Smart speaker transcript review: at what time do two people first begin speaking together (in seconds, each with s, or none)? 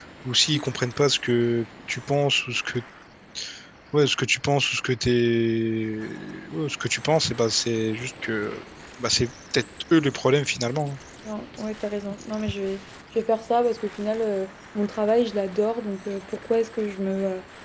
none